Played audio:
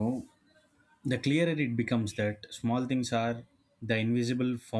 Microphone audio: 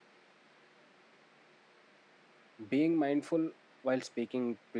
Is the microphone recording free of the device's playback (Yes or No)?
Yes